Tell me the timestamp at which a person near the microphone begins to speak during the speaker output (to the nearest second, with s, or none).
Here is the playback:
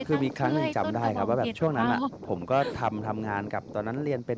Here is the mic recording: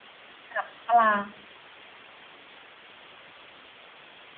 1 s